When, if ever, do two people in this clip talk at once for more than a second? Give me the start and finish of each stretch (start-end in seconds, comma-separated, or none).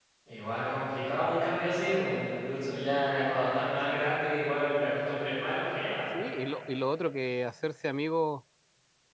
none